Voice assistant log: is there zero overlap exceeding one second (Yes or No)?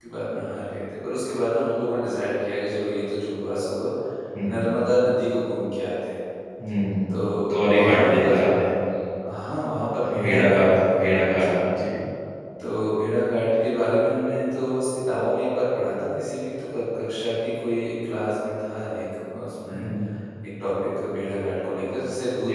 No